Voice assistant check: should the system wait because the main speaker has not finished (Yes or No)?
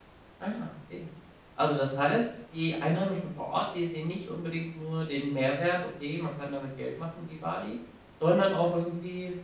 Yes